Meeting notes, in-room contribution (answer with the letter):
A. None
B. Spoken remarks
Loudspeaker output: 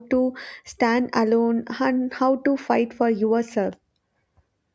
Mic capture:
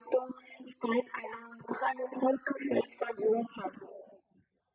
A